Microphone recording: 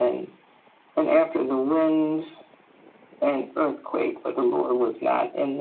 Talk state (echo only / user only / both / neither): echo only